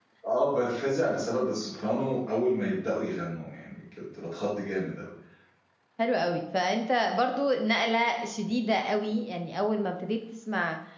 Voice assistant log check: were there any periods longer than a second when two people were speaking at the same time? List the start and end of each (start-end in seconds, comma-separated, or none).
none